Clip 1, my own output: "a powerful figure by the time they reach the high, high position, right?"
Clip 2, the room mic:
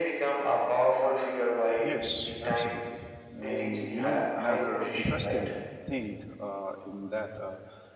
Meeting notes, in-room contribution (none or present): present